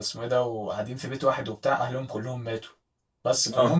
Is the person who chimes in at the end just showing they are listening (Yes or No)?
Yes